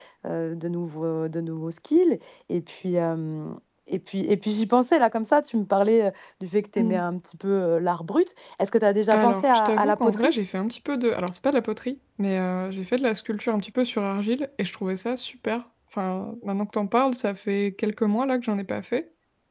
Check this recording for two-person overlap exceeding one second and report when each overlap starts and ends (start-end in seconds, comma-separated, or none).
9.1-10.3